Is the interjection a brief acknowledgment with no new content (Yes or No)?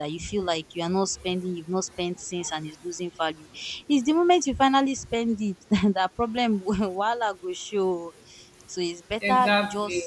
Yes